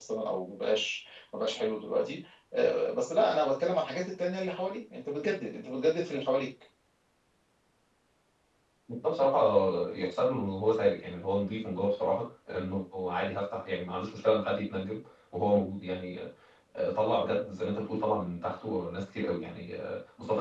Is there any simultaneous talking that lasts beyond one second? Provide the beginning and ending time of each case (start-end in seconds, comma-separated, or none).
none